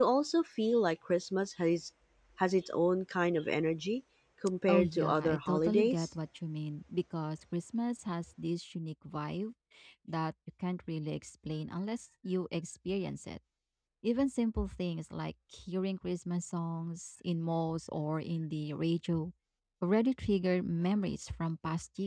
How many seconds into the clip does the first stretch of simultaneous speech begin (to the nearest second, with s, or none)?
5 s